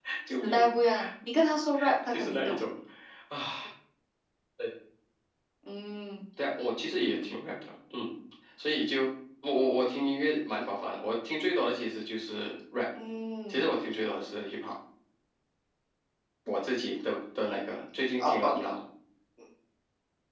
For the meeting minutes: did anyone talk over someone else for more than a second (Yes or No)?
No